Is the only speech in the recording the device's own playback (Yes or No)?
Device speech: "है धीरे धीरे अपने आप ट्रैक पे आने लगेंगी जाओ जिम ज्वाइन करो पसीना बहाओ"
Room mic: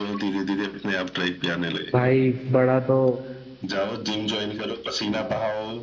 No